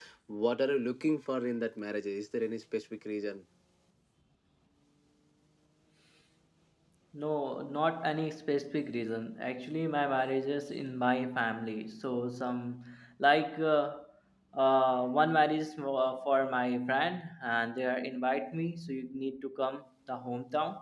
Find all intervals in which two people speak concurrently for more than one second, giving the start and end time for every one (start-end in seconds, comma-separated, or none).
none